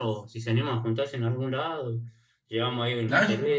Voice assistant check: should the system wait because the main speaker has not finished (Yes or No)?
Yes